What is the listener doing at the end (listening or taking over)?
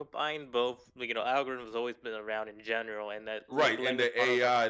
taking over